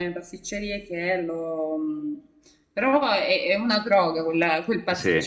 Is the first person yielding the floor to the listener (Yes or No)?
Yes